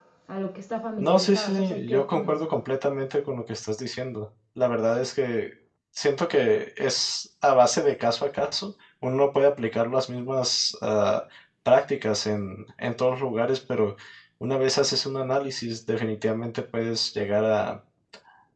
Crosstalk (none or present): present